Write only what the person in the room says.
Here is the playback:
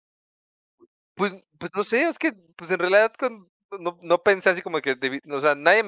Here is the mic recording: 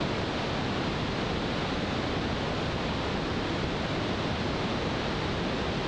none

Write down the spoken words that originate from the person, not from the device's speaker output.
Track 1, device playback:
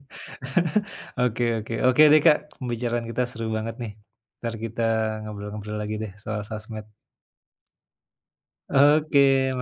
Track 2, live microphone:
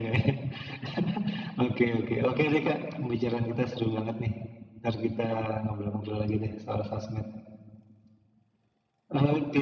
none

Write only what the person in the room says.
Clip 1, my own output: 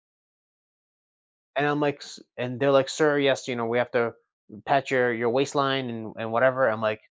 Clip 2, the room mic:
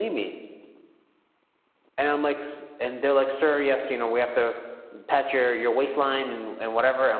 none

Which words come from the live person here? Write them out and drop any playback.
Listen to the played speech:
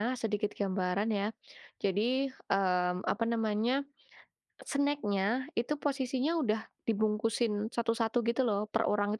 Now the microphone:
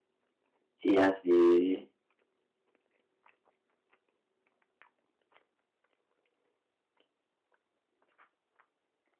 Iya sih.

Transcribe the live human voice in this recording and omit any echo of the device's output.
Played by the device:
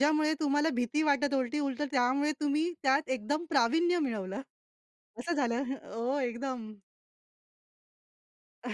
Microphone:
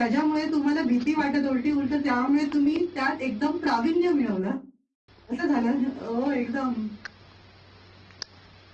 none

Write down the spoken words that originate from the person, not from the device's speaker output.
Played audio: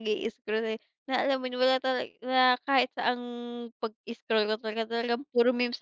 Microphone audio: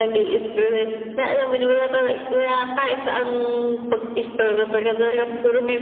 none

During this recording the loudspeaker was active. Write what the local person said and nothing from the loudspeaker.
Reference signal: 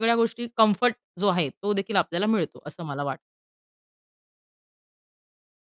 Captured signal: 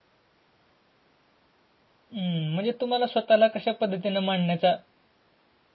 हं, म्हणजे तुम्हाला स्वतःला कशा पद्धतीनं मांडण्याचा

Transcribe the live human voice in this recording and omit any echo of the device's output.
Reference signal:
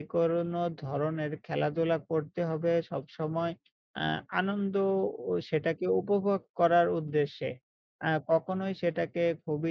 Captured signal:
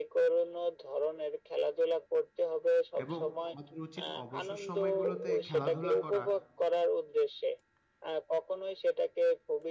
এবং আমাদের উচিত অবসর সময়গুলোতে খেলাধুলা করা।

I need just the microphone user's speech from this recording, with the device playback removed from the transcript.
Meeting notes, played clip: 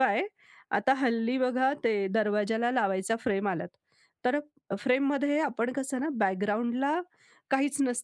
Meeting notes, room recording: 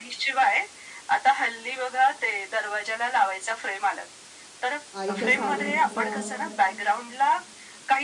आईच्या साडीचा

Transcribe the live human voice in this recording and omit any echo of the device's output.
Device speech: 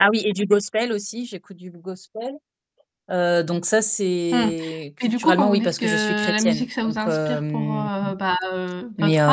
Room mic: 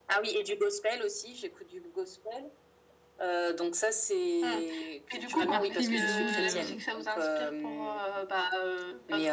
ça fait partie oui de vous de

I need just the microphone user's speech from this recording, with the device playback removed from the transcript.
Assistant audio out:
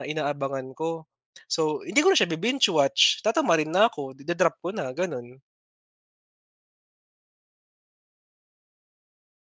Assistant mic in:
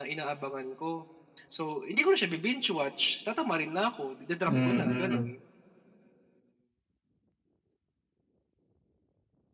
Mm.

